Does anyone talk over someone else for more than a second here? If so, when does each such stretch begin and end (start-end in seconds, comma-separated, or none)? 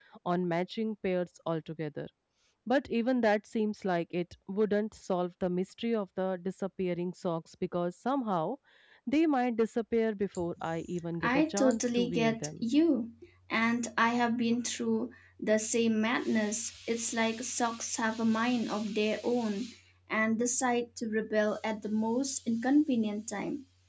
11.2-12.6